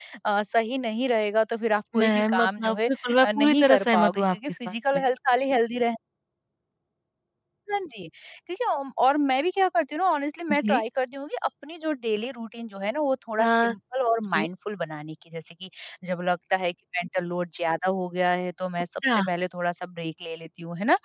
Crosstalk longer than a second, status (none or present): present